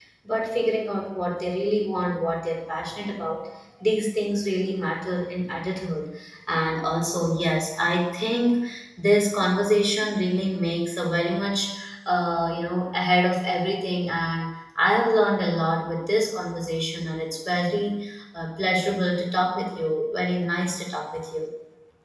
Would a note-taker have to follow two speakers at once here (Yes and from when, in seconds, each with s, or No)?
No